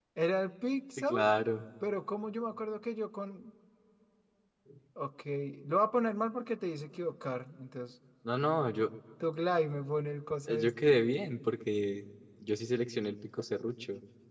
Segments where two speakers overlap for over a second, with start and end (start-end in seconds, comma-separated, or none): none